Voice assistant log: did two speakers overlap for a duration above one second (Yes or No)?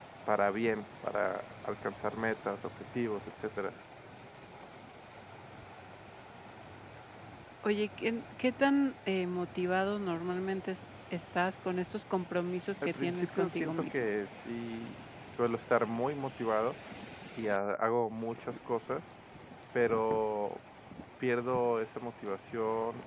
Yes